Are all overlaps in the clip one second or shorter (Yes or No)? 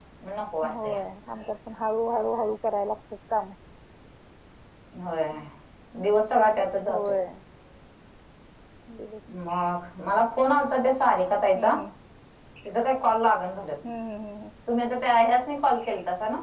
Yes